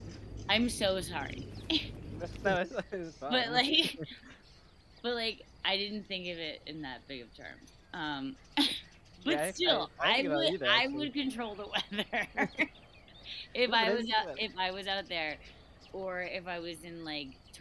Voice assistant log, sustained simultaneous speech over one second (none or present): present